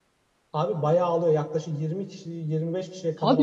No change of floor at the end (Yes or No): No